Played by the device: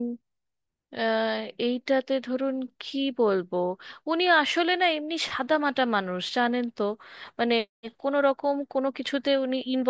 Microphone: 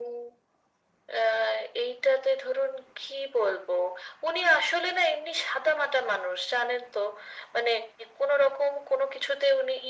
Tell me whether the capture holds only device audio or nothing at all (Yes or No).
Yes